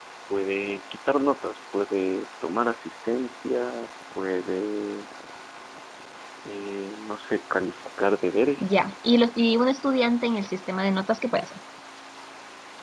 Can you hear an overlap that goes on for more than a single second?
No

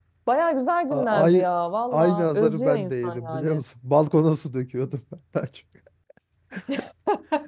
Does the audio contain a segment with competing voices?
Yes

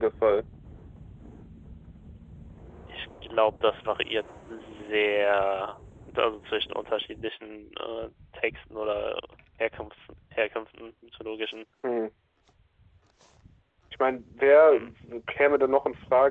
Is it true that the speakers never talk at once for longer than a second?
Yes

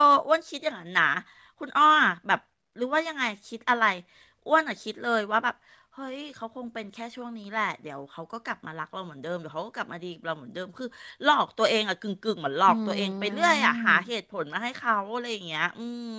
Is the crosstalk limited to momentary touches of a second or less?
No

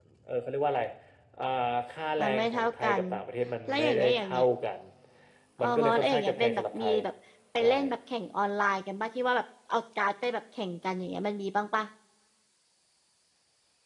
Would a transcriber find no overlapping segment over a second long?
No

